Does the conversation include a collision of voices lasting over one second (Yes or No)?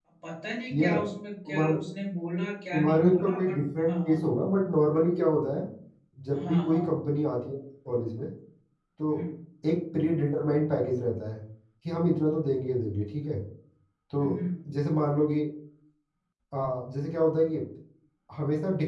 Yes